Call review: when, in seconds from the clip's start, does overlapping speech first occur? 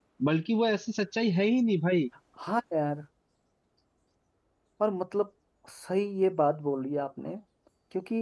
none

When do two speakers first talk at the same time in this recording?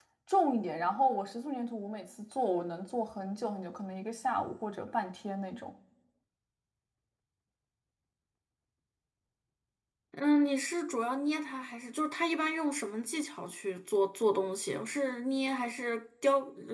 none

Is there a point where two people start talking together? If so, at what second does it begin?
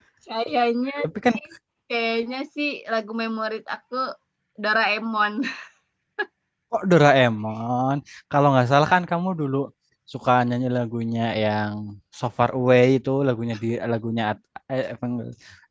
none

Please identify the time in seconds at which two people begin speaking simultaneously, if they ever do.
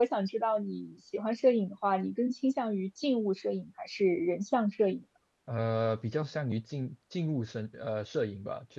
none

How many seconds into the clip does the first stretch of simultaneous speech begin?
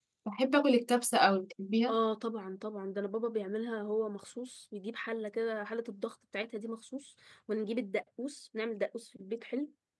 none

